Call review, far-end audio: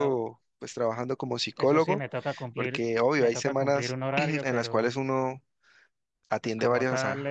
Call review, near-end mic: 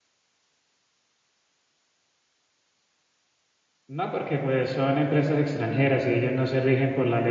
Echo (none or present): none